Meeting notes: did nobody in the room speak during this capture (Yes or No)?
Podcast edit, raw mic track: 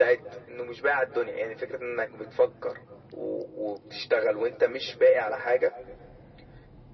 Yes